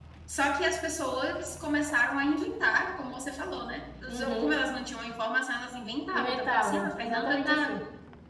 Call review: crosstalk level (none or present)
present